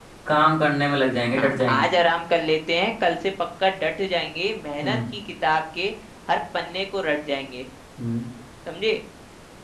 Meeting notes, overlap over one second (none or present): none